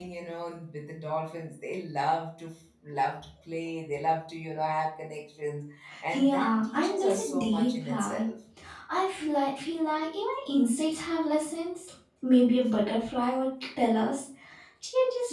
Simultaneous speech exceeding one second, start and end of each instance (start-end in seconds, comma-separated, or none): 6.1-8.3